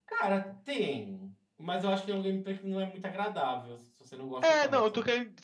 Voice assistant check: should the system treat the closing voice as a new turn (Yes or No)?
Yes